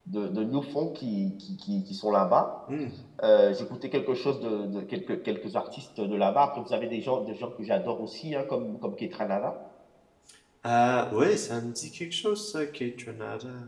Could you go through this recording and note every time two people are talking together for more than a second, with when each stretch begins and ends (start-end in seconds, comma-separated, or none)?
none